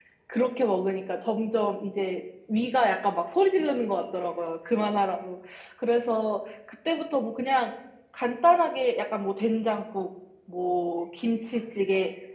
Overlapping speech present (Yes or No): No